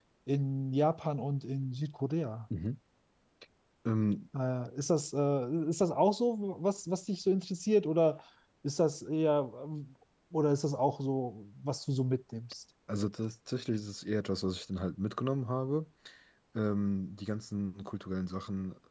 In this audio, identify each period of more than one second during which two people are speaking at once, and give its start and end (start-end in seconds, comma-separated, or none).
none